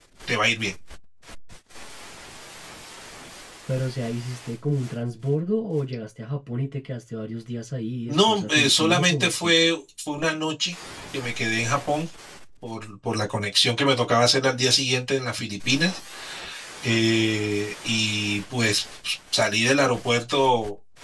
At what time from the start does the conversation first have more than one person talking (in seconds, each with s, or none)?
8.1 s